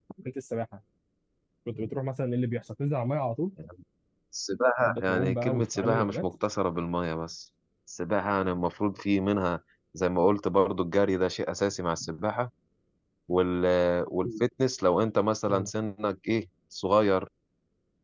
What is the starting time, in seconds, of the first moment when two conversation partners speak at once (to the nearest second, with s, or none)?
5 s